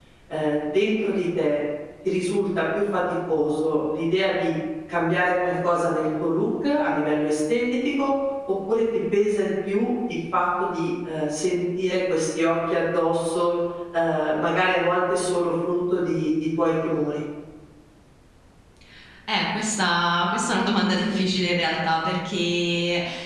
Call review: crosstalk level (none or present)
none